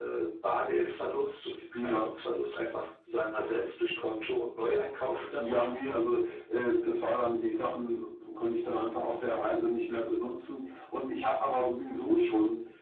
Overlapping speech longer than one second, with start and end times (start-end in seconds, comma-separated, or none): none